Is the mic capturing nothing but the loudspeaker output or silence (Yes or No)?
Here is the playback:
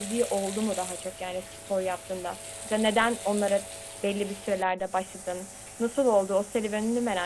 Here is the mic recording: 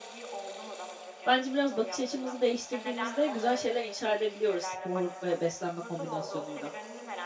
No